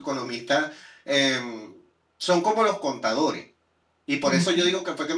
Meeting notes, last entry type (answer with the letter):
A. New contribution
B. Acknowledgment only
B